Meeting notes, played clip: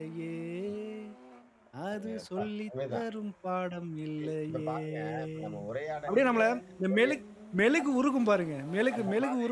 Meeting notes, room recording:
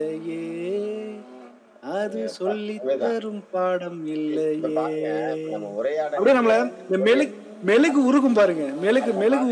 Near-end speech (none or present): none